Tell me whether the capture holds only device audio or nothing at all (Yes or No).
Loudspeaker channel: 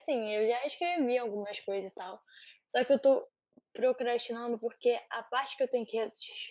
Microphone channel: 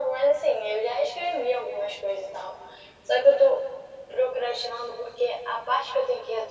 Yes